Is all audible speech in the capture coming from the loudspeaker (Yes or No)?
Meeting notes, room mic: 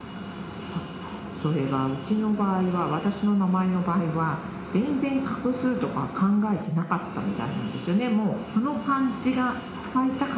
Yes